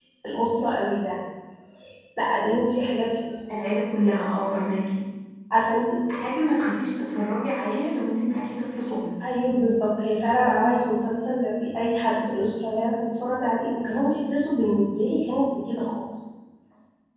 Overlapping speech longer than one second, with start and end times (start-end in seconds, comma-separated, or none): none